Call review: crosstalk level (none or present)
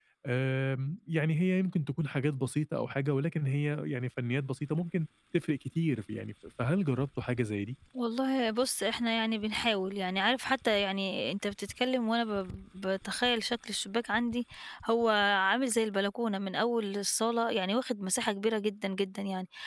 none